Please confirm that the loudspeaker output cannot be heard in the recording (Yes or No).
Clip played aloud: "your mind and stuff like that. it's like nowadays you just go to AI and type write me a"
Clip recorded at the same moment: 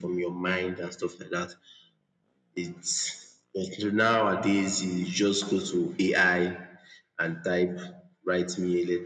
No